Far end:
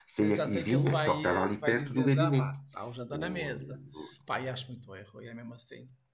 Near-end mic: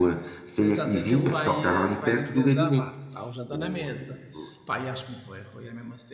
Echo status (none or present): present